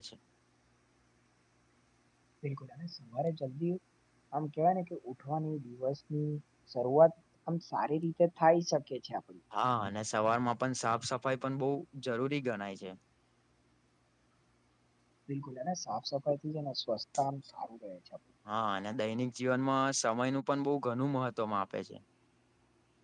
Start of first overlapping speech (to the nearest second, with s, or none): none